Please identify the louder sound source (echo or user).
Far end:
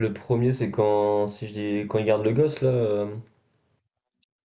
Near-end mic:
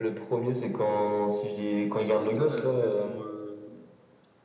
echo